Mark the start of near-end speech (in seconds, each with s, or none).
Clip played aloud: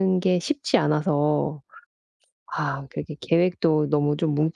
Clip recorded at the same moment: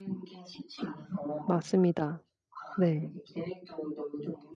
1.4 s